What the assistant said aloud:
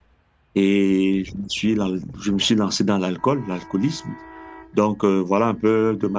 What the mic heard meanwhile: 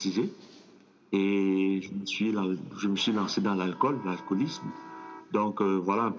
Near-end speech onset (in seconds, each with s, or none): none